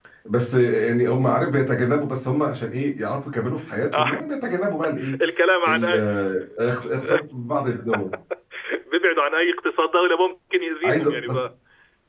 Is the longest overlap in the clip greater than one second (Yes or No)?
No